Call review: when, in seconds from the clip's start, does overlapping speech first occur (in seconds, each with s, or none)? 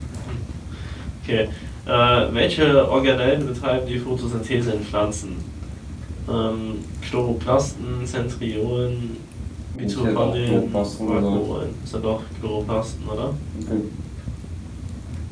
9.7 s